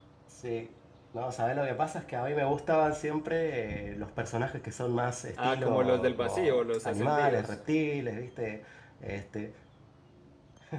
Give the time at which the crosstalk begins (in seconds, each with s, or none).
5.4 s